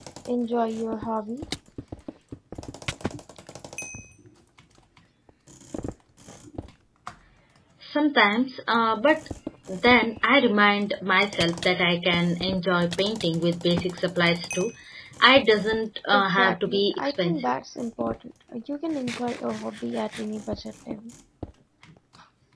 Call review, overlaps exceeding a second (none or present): present